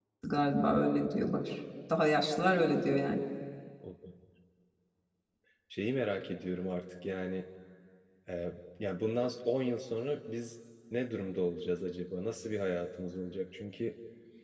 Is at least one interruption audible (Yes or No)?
No